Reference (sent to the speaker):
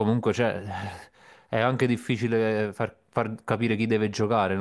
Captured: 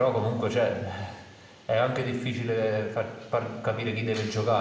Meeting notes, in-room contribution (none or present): none